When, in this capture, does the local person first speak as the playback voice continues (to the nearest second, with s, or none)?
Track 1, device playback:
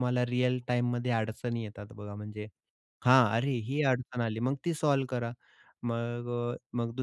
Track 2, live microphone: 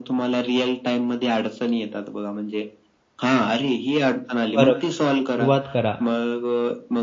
5 s